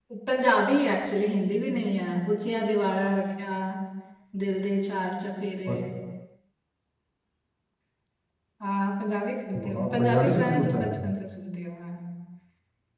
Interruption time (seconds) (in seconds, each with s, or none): 9.6 s